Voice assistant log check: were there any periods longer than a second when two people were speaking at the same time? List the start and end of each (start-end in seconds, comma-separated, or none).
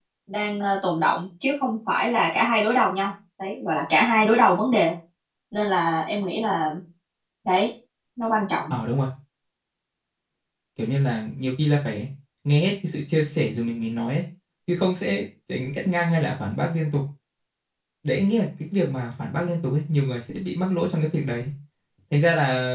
none